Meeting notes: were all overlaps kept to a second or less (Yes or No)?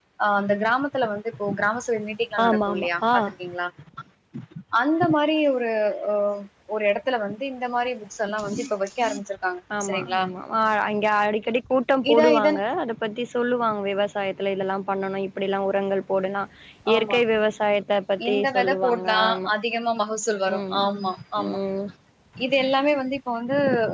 No